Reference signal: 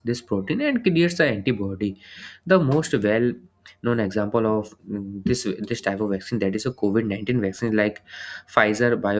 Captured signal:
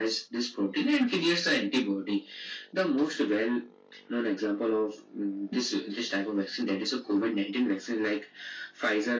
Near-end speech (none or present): none